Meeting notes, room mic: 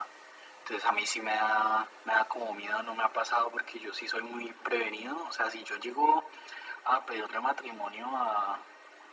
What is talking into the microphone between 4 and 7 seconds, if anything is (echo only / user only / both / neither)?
echo only